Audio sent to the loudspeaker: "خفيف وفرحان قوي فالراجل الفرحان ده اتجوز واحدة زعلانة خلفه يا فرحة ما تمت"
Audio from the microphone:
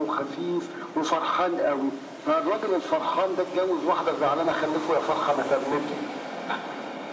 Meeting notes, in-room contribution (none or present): none